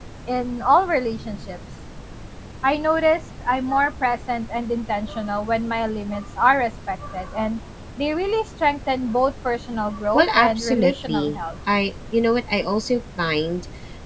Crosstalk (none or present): present